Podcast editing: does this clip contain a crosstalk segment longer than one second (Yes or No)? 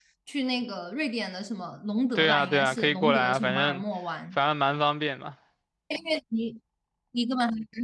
Yes